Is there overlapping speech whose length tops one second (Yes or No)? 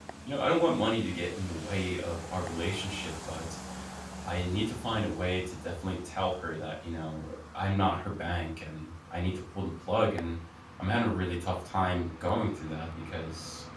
No